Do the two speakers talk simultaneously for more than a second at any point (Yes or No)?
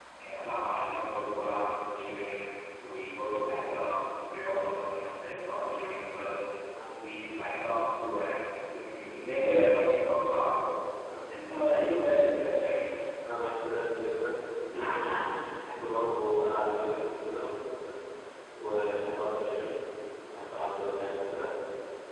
No